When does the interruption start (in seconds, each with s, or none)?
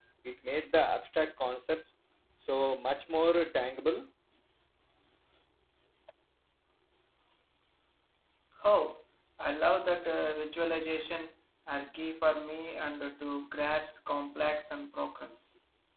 none